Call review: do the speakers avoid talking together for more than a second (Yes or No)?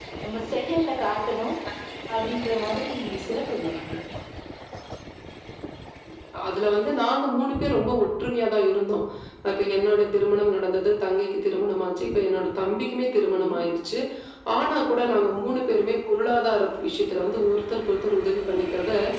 Yes